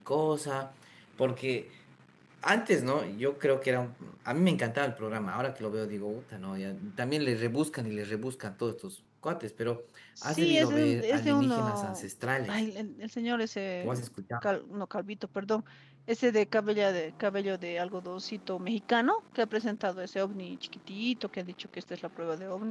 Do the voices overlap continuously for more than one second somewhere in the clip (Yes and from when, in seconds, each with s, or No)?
Yes, from 10.2 s